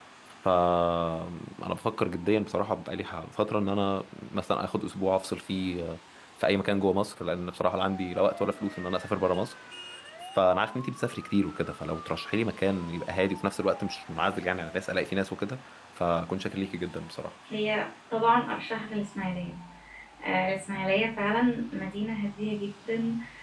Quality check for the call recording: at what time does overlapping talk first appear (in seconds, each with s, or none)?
none